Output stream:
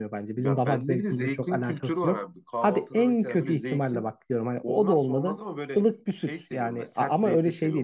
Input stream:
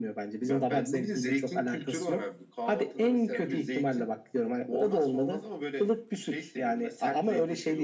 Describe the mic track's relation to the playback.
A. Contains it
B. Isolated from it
A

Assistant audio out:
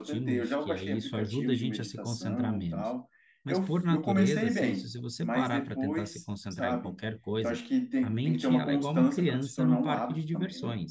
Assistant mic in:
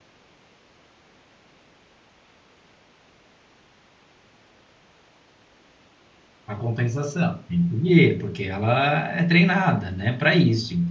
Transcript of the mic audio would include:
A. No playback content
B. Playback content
A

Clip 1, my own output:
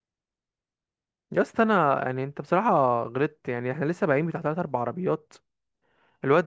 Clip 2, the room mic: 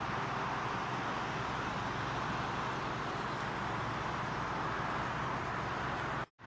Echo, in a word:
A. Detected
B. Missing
B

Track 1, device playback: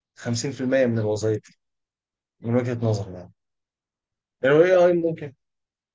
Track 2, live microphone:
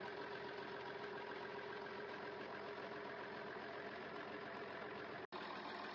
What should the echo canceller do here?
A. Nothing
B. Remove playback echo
A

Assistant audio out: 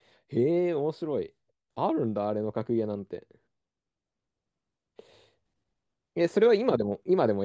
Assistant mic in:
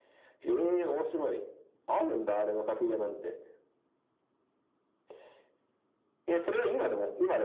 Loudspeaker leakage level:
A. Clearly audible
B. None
A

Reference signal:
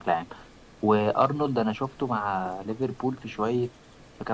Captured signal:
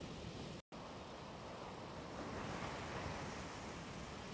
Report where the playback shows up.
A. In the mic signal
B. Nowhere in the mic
B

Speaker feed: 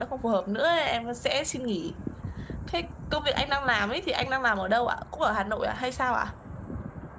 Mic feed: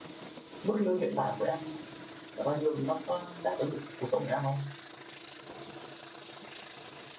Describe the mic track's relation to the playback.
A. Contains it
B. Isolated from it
B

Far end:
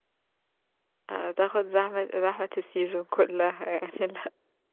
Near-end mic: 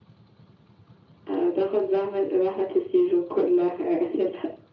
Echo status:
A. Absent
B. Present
B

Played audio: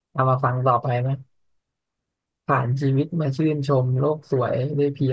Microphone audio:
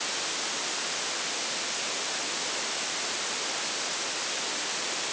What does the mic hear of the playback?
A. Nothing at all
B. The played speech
A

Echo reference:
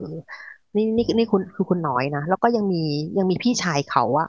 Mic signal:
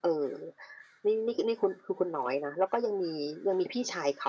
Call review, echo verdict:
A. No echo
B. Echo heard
B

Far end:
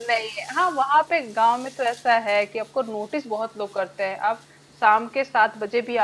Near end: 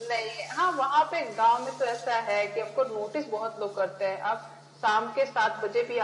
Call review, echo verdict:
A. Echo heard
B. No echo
A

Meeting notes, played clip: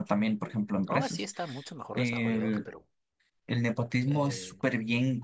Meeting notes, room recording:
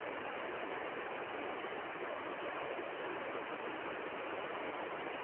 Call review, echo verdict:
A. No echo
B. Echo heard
A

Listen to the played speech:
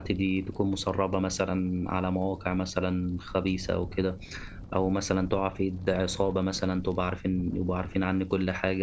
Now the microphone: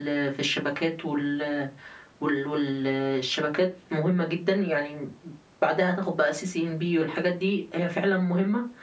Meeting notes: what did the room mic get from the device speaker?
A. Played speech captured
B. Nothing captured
B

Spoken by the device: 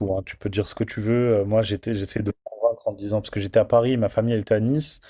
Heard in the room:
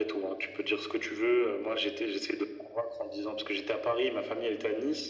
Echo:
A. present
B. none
A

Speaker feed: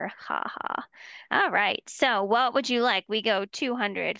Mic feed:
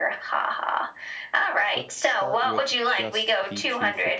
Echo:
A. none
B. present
B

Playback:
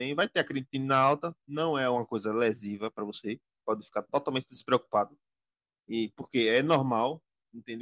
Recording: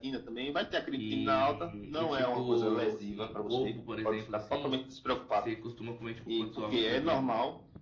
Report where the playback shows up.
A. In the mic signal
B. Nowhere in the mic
A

